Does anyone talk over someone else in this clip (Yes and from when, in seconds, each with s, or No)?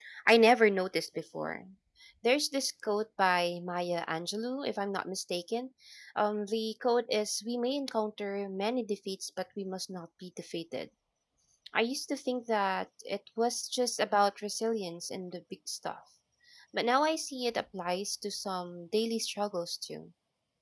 No